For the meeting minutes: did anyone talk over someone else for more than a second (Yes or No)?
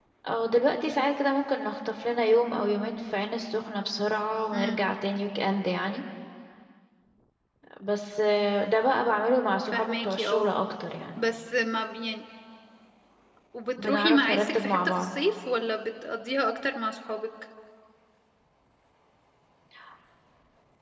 Yes